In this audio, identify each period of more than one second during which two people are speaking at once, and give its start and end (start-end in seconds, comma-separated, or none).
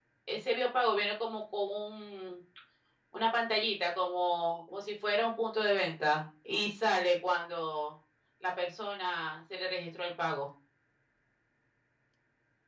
none